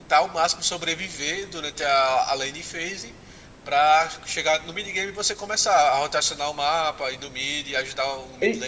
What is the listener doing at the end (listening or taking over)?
taking over